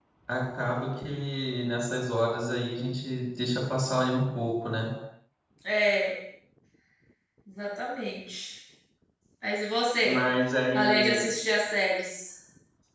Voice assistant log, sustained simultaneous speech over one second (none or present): none